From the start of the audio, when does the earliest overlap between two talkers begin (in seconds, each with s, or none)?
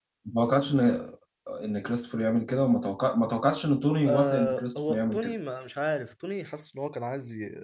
4.1 s